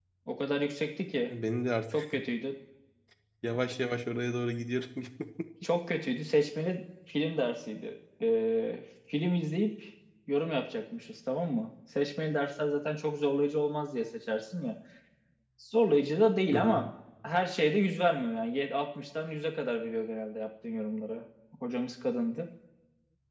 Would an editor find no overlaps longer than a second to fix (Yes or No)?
Yes